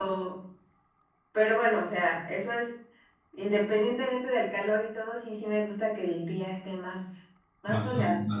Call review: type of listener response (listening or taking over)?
taking over